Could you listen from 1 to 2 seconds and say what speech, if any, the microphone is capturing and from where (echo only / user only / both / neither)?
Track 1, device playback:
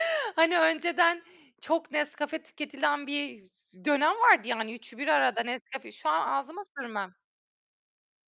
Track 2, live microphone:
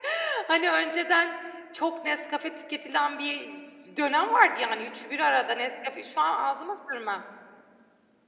echo only